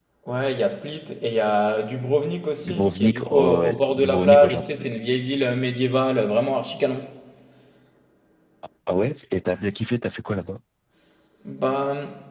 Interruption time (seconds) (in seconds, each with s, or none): 2.6 s